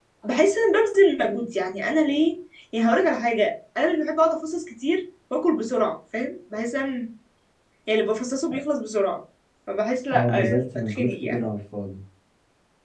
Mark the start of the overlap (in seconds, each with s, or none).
10.1 s